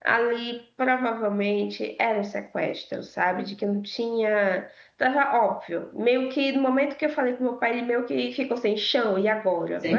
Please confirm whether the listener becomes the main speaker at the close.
Yes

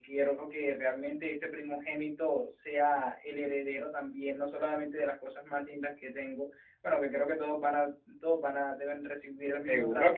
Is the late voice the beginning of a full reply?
Yes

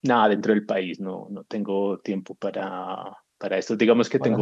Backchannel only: Yes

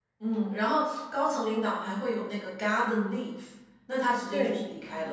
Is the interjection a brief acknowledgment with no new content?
Yes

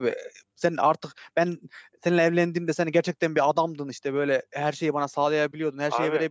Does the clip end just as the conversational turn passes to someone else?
No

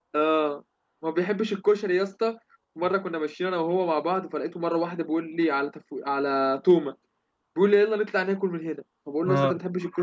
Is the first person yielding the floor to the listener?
No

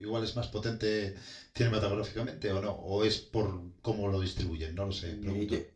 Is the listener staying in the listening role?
No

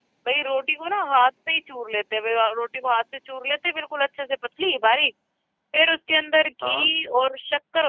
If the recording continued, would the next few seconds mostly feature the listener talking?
No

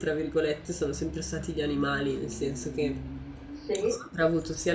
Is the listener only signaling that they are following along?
Yes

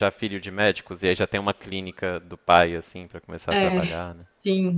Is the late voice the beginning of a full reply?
Yes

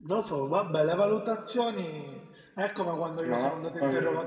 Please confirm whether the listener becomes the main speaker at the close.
No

